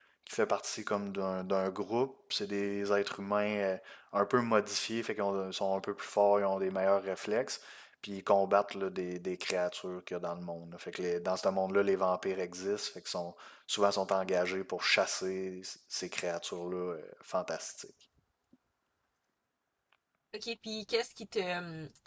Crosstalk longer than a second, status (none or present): none